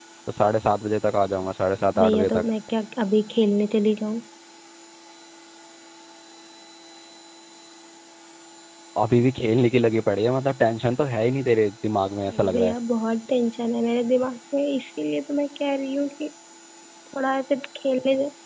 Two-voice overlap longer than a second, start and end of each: none

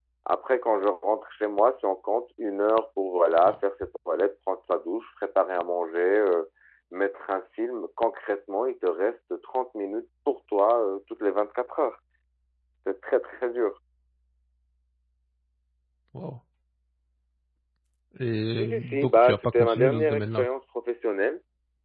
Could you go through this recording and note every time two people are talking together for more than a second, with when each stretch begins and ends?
18.5-20.5

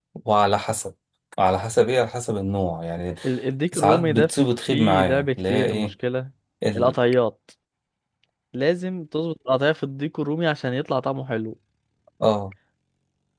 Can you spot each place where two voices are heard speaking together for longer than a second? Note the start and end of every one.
4.7-5.9

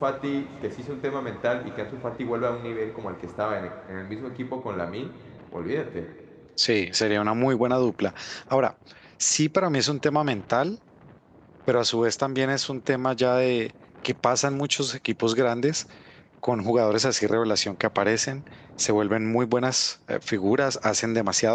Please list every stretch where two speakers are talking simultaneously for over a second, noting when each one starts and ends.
none

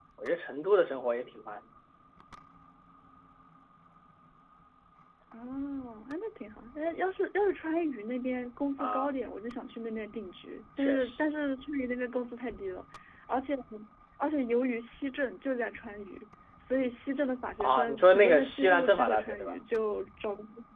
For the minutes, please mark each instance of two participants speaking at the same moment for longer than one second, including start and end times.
17.6-19.6

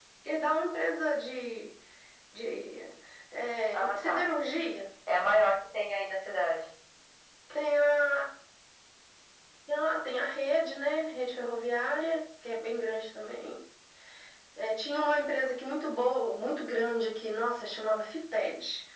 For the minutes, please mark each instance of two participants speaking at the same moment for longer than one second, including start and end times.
none

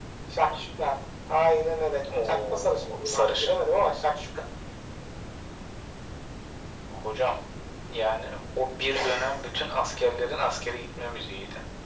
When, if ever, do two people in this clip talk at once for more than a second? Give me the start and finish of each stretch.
2.2-3.5

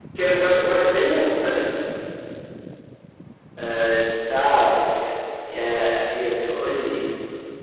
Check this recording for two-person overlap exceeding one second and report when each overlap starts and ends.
none

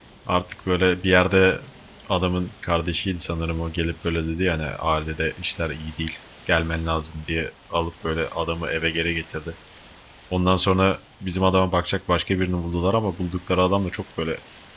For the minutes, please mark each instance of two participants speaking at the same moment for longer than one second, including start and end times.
none

